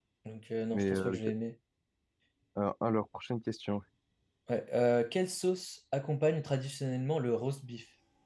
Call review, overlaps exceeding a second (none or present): none